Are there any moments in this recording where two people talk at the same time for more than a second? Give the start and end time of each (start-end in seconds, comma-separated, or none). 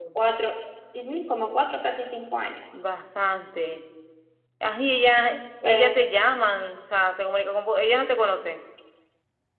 none